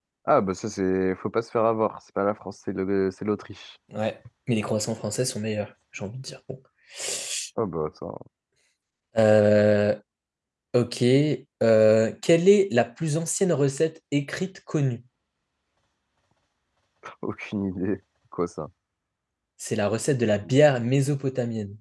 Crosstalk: none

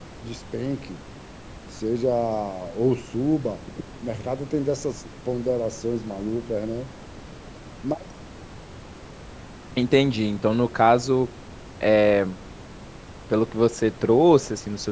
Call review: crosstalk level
none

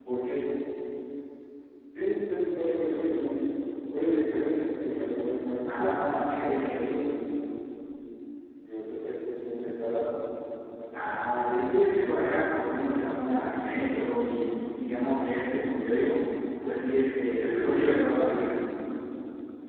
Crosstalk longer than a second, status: none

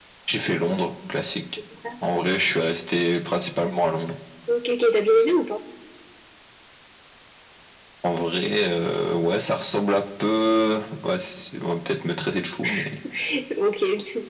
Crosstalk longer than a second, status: none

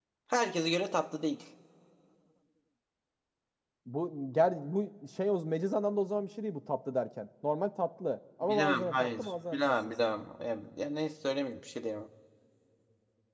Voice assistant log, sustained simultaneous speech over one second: present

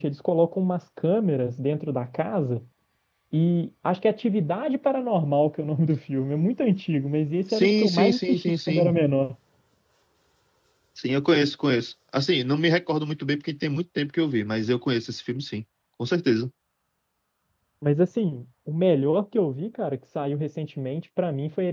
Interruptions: present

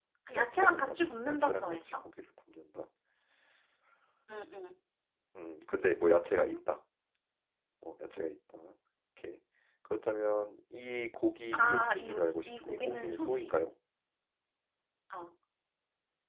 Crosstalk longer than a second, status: present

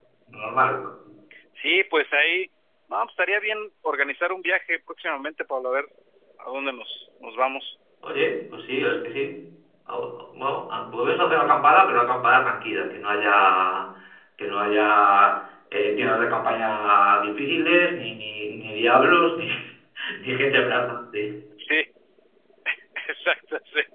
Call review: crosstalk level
none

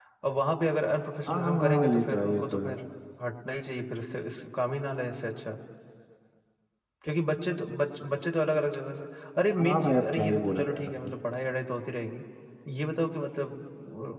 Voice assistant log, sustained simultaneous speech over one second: present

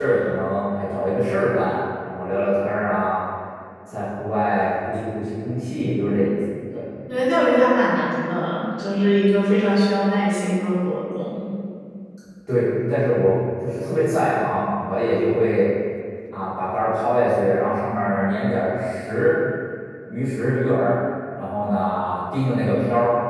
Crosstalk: none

